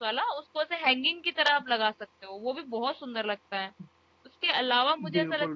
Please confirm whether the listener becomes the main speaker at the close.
No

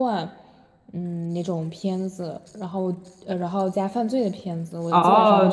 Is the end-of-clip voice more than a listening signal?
Yes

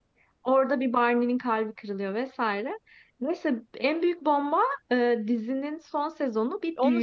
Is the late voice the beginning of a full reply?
Yes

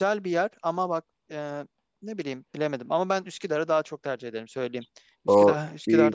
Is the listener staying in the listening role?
No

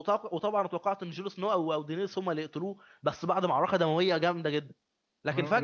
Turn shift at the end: Yes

